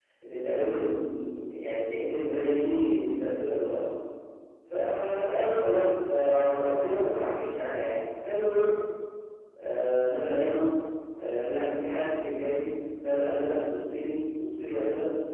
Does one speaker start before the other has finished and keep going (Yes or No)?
No